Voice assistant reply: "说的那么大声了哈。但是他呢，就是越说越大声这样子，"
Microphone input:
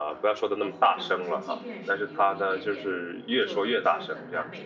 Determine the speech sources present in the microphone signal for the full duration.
both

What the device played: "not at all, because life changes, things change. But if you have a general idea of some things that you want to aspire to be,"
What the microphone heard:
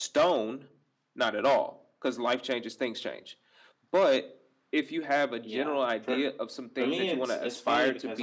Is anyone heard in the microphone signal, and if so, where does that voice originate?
both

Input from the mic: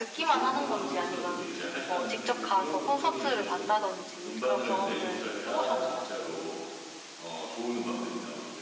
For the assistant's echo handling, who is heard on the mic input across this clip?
both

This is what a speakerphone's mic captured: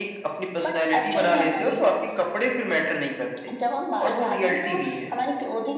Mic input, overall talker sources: echo only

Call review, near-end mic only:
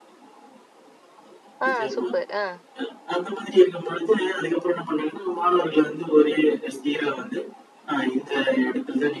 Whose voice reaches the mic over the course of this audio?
both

